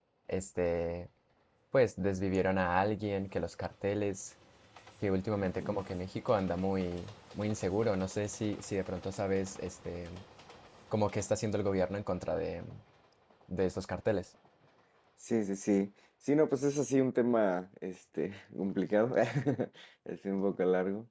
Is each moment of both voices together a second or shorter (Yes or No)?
Yes